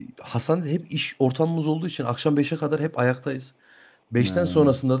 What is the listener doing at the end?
listening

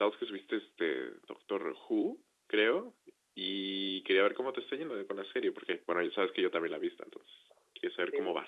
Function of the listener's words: taking over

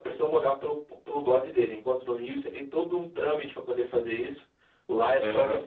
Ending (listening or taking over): listening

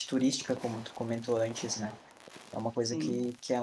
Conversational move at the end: listening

